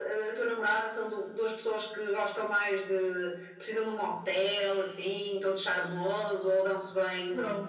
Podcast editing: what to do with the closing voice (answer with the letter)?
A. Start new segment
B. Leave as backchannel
A